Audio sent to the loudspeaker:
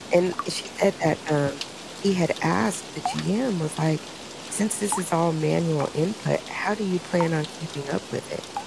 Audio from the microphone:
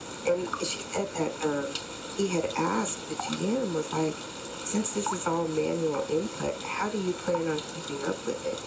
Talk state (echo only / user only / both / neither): echo only